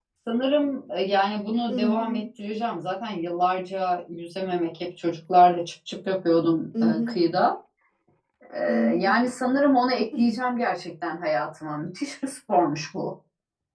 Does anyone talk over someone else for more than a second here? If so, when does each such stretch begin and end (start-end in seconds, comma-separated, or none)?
none